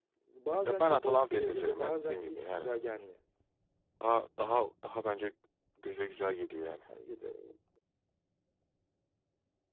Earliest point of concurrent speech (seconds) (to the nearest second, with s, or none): 1 s